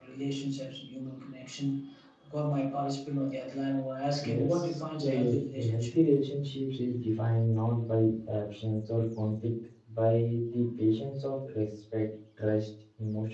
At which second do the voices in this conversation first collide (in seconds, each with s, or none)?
4.2 s